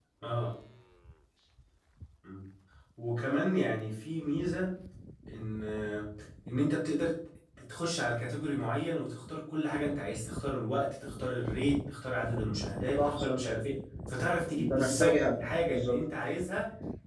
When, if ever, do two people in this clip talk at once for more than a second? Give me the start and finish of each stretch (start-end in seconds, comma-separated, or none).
14.6-16.0